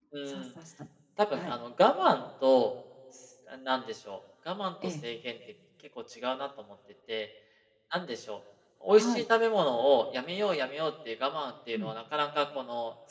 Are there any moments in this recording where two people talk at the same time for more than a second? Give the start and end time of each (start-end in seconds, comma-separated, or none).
none